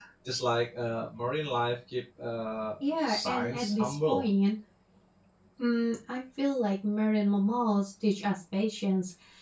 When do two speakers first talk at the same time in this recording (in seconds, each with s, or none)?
2.8 s